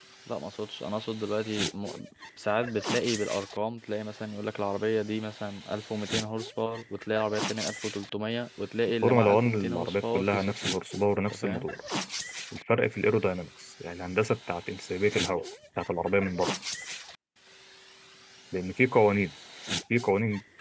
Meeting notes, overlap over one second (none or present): present